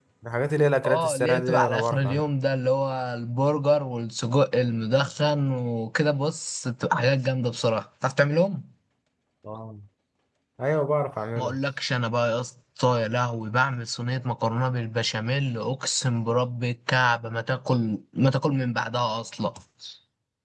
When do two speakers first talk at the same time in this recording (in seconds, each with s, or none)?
0.8 s